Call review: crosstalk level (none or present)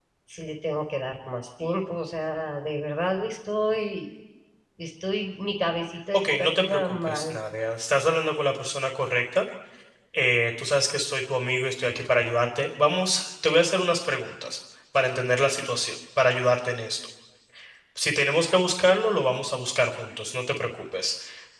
present